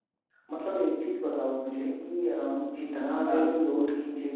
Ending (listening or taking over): listening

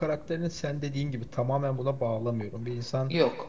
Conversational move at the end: listening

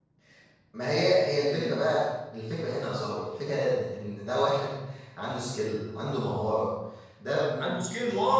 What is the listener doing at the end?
taking over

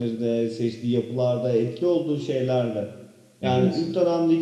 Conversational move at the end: listening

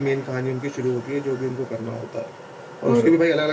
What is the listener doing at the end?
listening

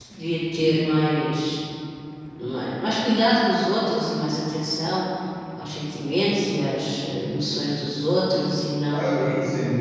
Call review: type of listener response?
taking over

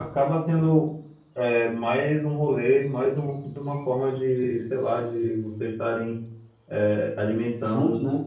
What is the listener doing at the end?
listening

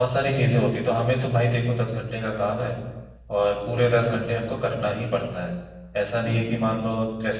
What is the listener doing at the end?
listening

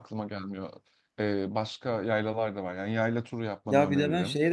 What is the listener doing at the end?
taking over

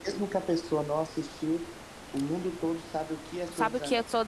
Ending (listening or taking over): taking over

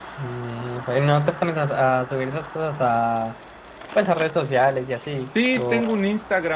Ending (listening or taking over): taking over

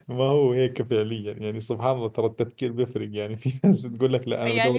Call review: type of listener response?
taking over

